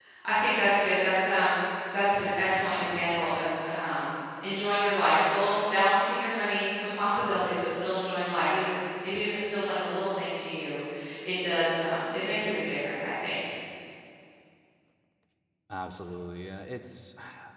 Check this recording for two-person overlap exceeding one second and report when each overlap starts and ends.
none

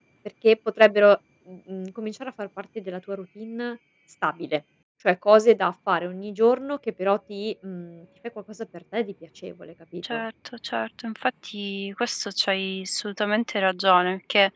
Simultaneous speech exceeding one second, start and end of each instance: none

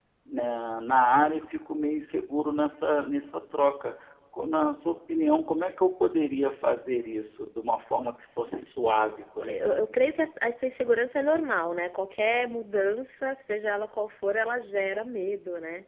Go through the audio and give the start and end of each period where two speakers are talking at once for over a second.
none

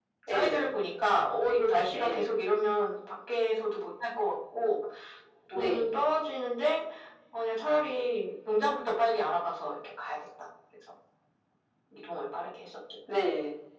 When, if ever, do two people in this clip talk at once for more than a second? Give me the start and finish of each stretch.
none

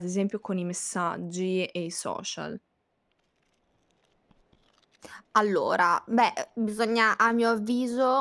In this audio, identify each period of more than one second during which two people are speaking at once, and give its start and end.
none

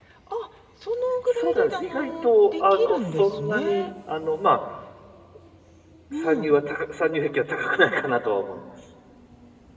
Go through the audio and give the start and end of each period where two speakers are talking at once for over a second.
1.4-3.9

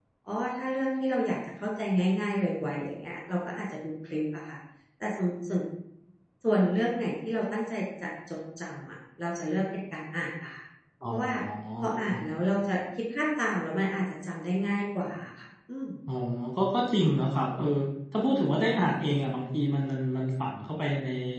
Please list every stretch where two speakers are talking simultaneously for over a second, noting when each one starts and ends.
none

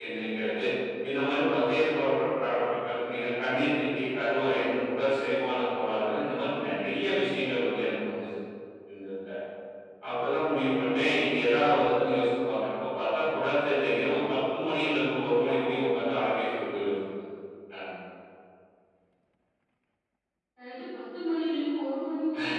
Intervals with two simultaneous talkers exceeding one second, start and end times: none

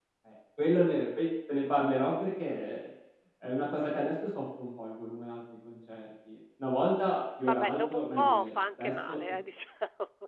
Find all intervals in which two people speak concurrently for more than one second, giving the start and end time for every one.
7.5-9.2

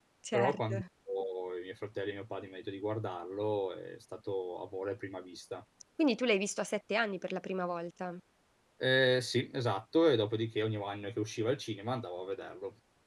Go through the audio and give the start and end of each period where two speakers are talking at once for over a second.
none

